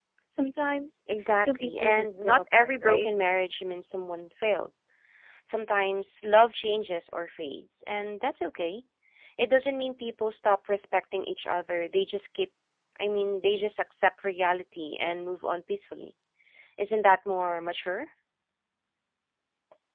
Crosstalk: present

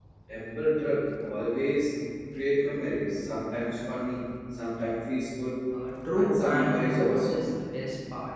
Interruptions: present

